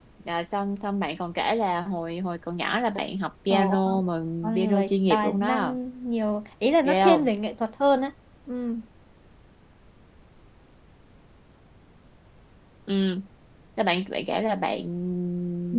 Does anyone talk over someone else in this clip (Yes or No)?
Yes